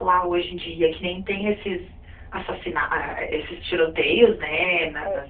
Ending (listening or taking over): listening